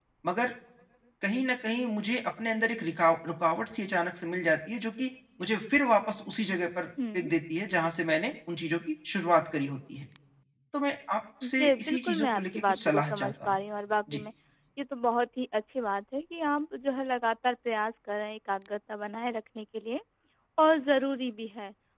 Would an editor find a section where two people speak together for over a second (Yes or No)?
Yes